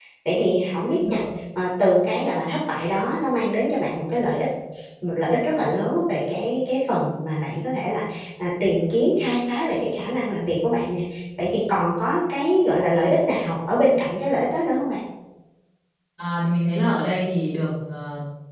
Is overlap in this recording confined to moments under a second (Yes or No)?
Yes